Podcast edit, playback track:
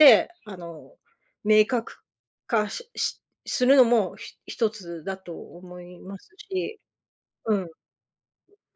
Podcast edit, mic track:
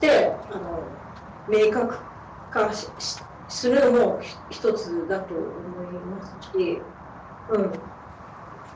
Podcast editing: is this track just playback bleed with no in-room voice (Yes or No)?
Yes